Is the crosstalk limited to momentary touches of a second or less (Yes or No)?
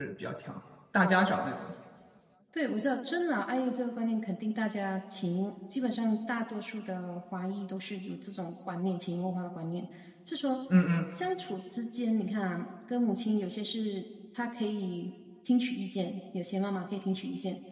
Yes